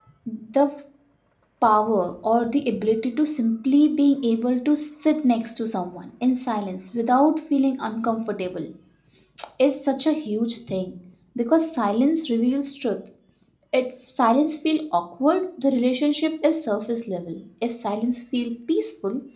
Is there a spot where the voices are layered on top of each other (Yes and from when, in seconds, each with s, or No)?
No